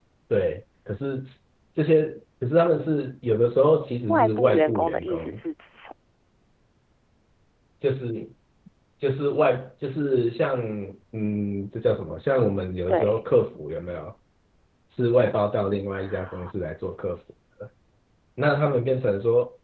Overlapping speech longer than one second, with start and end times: 4.1-5.4

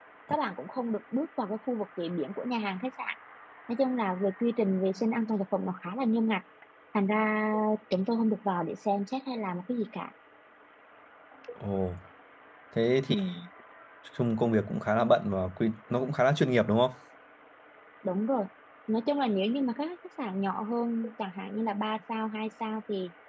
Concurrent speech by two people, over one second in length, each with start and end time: none

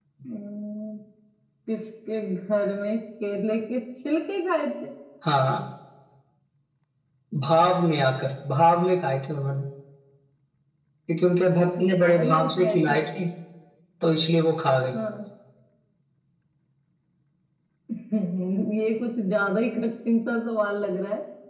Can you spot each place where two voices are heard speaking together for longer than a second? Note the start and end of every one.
11.8-13.0

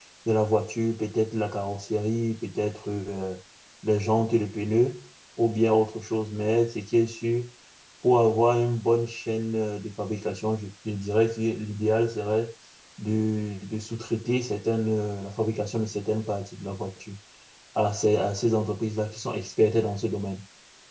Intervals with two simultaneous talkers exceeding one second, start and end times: none

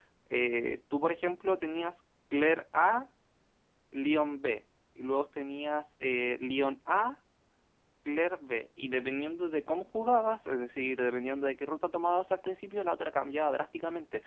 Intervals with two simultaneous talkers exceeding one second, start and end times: none

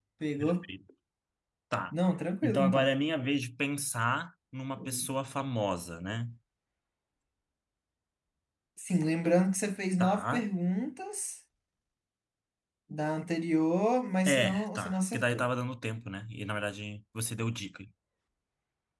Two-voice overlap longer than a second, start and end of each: 14.3-15.5

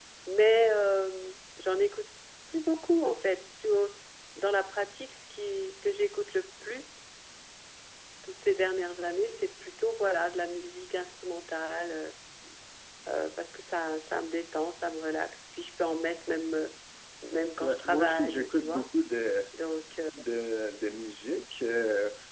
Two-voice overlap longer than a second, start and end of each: 17.6-18.9

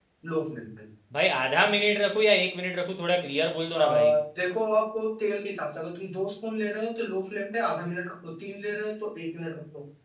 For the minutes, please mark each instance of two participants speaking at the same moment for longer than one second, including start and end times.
none

